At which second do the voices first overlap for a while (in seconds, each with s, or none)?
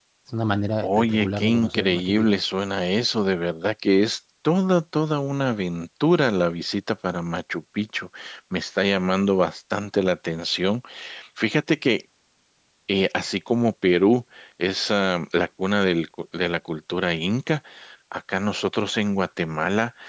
0.8 s